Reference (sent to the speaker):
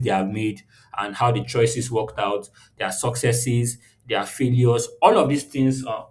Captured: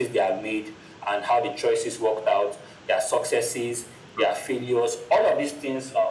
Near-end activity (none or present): present